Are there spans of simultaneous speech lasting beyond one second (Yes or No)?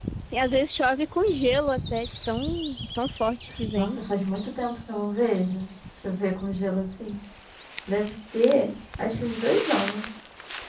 No